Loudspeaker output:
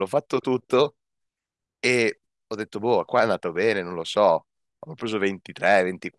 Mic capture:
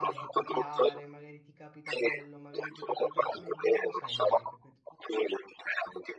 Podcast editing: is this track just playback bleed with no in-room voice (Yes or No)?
No